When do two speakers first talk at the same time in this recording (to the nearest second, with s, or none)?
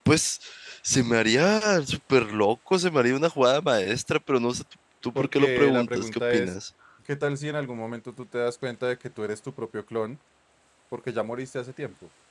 5 s